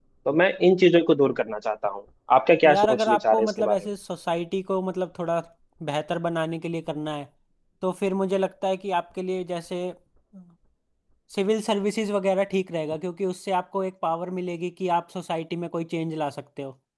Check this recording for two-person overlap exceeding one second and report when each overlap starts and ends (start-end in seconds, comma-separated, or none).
2.7-3.9